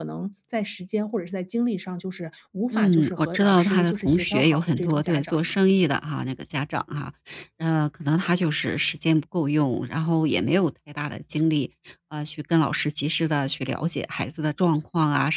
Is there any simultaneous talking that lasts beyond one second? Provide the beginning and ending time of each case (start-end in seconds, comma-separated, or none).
2.7-5.6